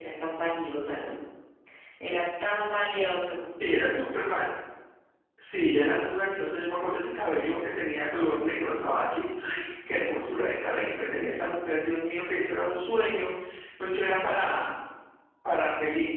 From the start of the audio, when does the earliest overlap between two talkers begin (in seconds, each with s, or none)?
none